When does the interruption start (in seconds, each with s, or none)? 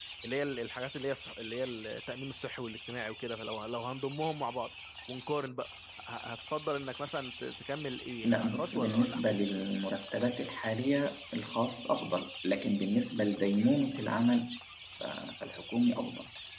8.2 s